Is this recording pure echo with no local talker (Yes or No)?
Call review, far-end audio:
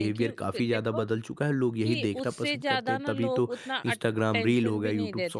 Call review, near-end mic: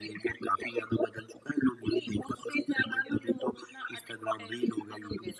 Yes